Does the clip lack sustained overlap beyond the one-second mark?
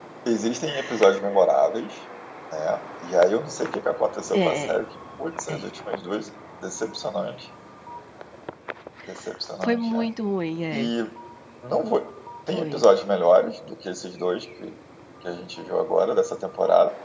Yes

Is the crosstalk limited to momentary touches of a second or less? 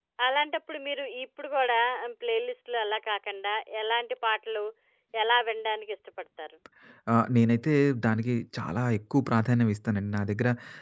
Yes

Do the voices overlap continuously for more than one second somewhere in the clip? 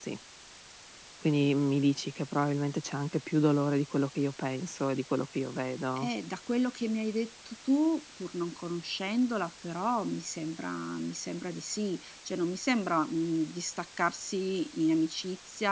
No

